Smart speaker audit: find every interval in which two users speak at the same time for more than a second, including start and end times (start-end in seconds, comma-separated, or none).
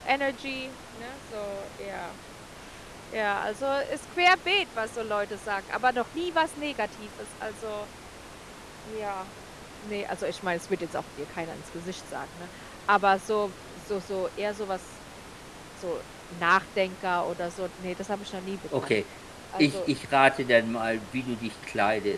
none